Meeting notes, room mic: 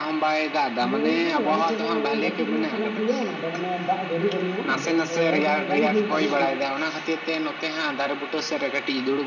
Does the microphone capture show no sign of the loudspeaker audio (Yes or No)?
No